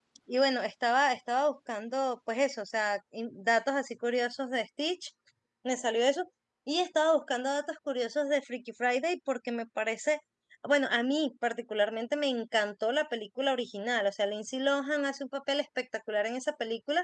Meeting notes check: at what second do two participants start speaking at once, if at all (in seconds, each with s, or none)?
none